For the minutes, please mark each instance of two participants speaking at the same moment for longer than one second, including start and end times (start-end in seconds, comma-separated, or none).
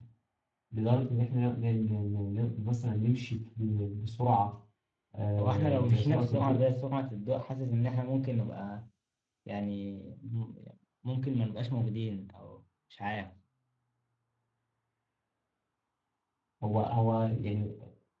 5.4-6.6